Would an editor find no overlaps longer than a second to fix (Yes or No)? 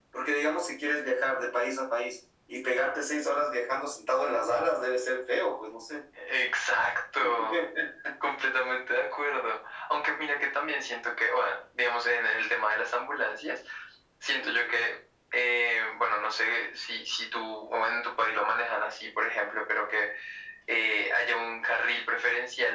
Yes